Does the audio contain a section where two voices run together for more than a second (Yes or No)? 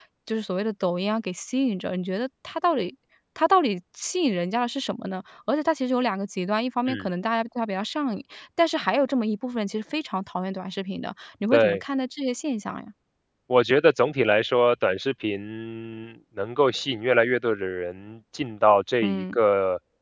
No